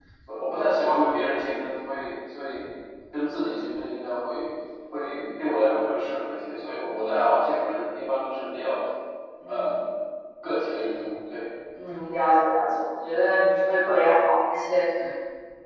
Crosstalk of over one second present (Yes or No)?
No